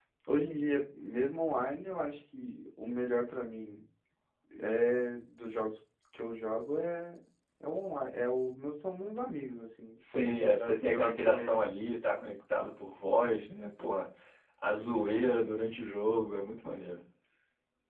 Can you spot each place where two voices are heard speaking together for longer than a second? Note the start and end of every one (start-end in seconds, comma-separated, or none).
10.1-11.7